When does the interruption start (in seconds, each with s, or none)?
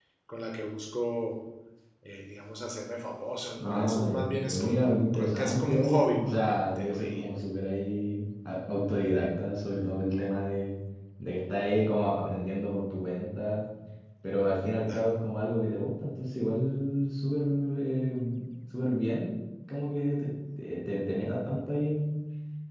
3.6 s